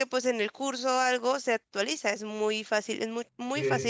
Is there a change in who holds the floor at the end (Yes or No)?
No